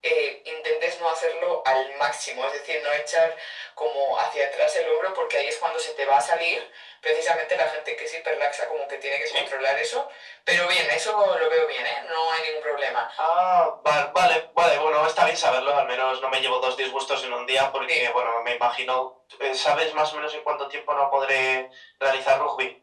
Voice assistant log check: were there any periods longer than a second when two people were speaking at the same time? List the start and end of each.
none

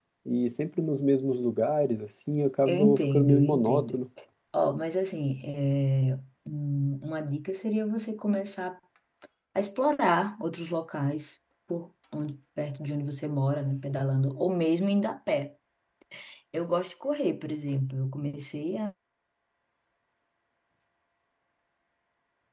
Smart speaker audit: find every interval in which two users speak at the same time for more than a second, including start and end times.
2.7-4.0

